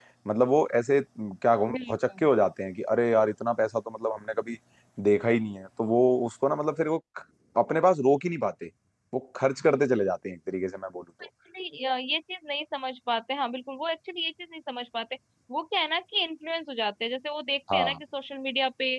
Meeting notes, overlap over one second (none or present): none